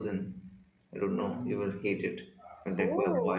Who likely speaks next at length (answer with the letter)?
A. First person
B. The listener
B